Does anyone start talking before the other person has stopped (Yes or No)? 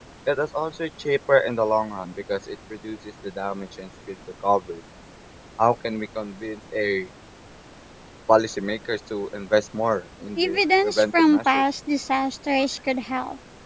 Yes